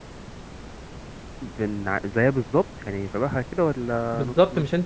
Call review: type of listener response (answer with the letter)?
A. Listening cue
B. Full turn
B